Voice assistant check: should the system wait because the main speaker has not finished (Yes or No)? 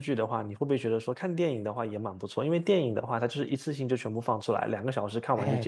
No